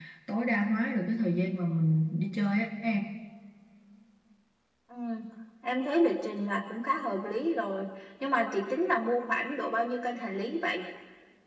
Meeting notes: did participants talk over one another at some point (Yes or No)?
No